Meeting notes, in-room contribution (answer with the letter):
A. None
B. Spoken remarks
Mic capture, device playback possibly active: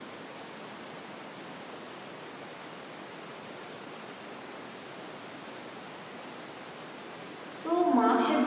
B